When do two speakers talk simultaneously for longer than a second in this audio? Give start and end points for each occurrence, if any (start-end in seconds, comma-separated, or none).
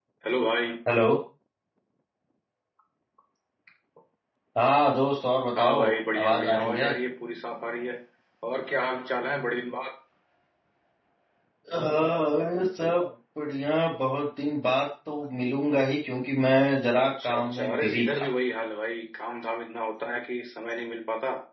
5.6-6.9, 17.0-18.3